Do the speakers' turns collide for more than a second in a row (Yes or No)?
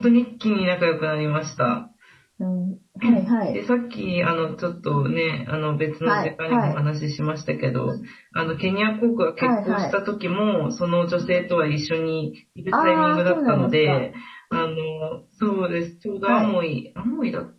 Yes